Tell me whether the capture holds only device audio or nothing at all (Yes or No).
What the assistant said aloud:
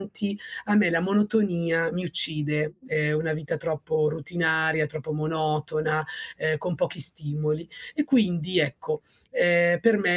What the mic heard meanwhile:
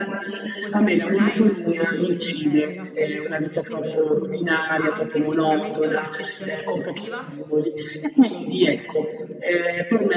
No